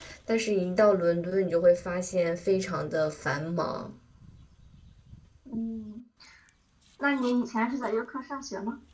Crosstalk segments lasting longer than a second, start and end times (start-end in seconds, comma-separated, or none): none